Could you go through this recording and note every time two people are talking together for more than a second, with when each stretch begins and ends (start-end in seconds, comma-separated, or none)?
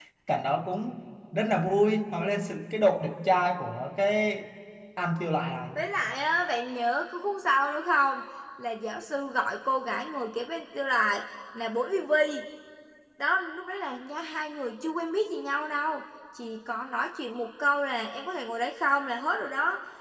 none